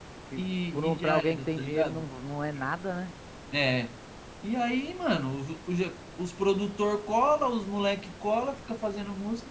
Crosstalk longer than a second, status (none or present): present